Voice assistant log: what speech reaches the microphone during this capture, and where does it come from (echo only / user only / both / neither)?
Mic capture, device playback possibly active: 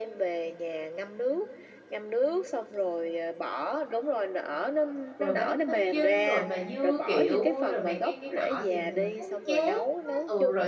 both